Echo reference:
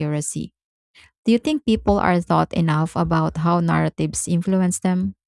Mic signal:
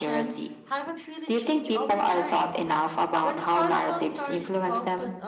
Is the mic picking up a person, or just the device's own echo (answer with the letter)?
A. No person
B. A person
B